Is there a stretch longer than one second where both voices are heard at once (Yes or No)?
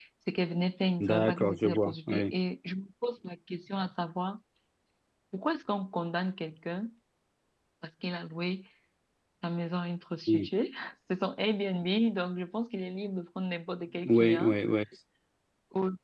Yes